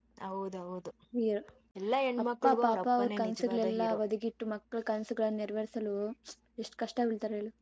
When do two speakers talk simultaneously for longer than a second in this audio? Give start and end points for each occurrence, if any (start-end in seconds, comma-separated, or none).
2.4-3.9